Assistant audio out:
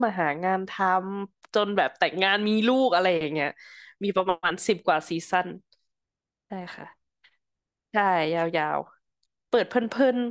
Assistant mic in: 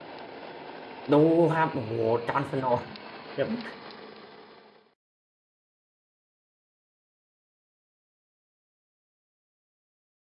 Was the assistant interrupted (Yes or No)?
Yes